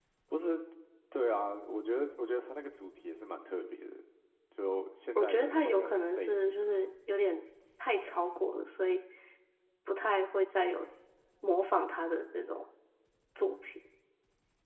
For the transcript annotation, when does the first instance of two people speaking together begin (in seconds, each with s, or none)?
5.2 s